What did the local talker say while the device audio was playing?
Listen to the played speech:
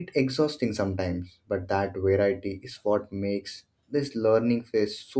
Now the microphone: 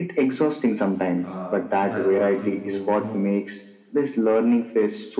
uh, by what you don't know.

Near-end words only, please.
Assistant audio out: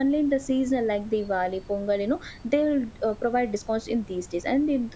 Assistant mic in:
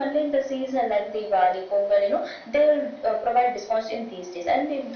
none

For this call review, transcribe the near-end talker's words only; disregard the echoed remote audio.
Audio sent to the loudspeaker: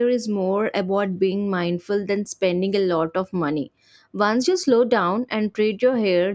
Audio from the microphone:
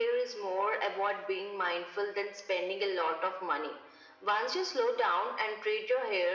none

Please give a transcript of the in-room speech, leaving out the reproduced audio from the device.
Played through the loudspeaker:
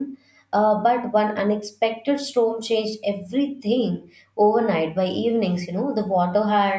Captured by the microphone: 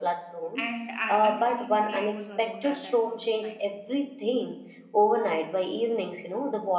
And I, unfortunately, I was alone at that point of time

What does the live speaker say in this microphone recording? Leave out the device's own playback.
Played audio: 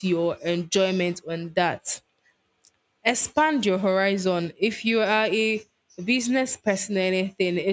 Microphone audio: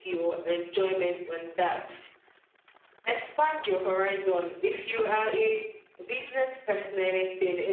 none

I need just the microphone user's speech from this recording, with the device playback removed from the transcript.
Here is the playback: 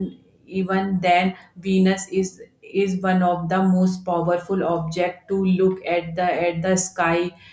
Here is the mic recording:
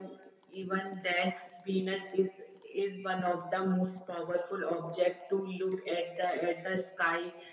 none

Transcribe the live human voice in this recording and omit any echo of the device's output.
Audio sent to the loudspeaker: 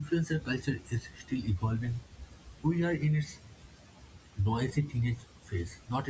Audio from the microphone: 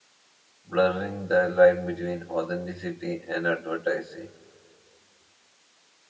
blurring the line between authenticity and advertising.

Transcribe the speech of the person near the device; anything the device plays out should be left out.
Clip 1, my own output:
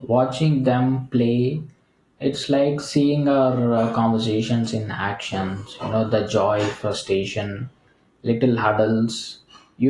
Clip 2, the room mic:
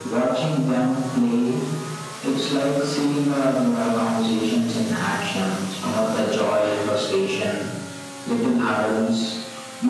none

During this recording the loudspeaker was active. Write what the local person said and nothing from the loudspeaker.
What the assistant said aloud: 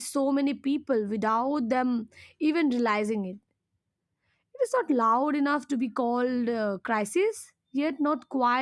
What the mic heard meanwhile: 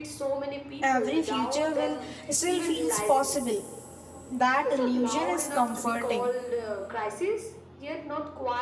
Every future will still feels possible. That illusion is comforting.

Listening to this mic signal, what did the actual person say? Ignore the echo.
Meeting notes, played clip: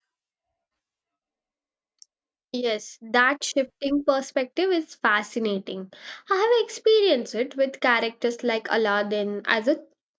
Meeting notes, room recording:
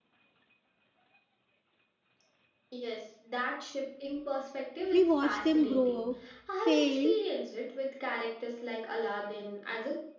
We watch them grow, fail,

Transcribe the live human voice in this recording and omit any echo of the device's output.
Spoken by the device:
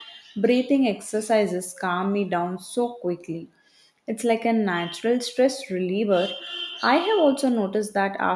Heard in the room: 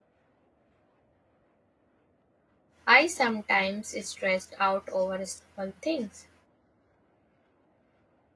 I sometimes stressed out over small things,

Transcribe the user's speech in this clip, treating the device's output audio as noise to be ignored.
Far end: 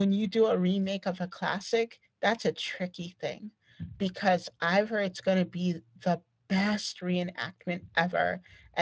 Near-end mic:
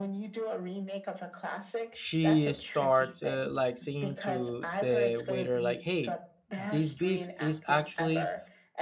she starts uh, like saying to the waiter like hey this beef is actually

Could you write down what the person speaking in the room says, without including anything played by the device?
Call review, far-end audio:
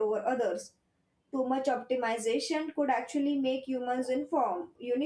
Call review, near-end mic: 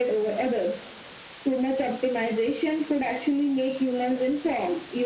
none

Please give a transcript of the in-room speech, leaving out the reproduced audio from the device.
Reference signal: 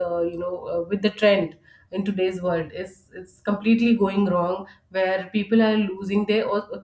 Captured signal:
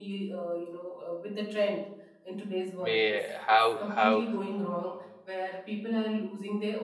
may have have

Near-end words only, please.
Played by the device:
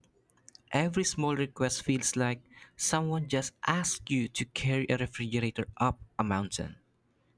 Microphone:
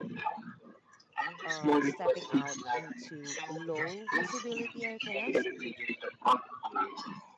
uh, stepping out into low visibility, I guess.

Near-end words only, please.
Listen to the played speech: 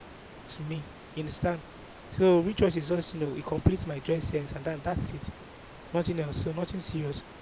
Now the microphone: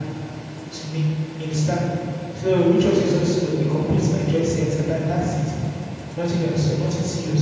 none

